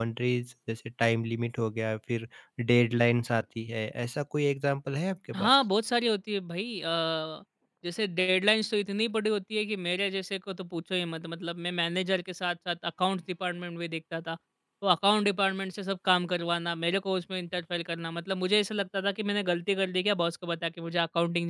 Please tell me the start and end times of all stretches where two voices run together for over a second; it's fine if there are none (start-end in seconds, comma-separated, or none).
none